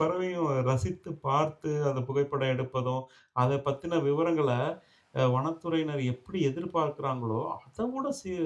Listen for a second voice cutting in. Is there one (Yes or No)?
No